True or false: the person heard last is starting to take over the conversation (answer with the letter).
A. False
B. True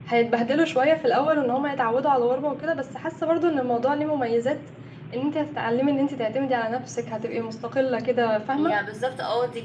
B